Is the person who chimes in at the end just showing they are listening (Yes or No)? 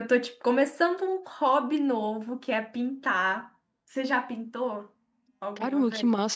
No